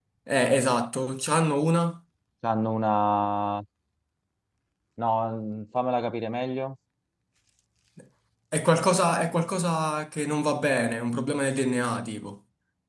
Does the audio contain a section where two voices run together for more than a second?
No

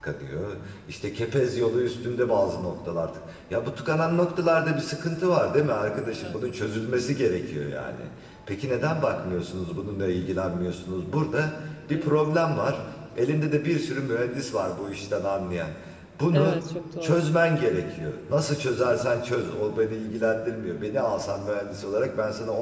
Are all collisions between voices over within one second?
Yes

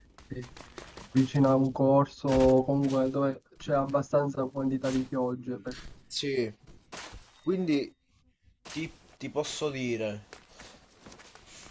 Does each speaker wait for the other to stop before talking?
Yes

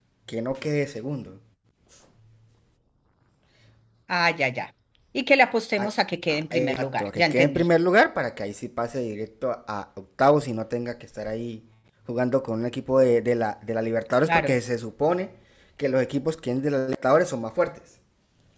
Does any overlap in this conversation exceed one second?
Yes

